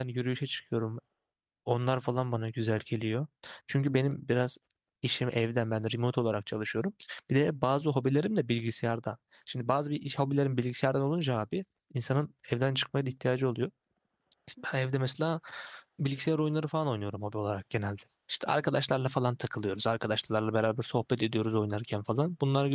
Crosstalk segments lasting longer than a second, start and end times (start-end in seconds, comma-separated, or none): none